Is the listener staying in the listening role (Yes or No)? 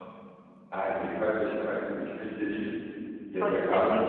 No